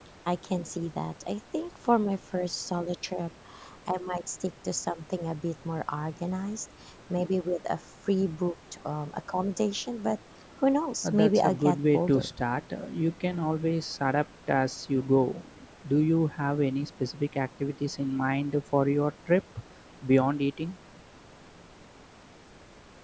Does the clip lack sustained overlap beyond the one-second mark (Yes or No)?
No